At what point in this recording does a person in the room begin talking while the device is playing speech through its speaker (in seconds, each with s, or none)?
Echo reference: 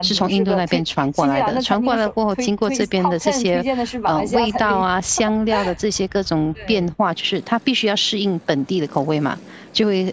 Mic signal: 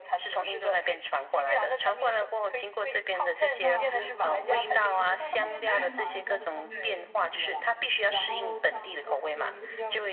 3.6 s